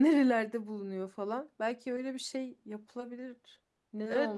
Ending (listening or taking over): taking over